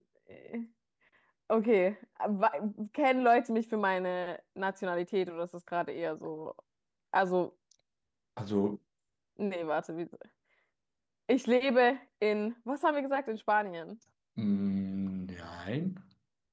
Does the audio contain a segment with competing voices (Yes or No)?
No